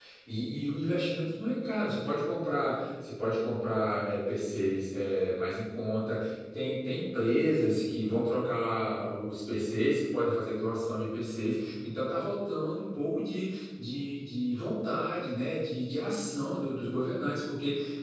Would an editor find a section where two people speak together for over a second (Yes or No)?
No